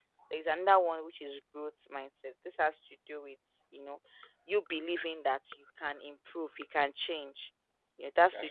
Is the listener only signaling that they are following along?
Yes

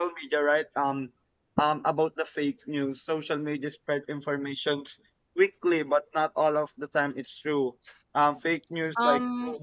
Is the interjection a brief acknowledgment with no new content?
No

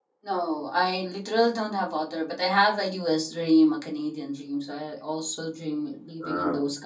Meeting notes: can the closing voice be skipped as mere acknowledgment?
Yes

